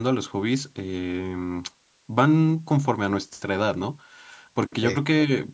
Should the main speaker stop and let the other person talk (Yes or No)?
No